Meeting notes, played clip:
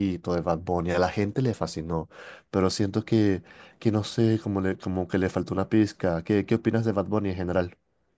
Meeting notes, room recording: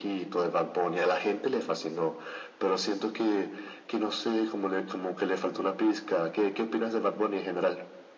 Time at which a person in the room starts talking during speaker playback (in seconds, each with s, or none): none